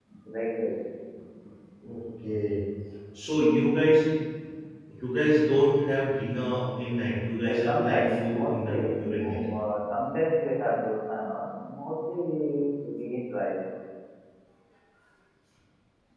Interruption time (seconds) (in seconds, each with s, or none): 7.4 s